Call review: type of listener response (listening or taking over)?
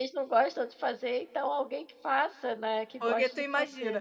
taking over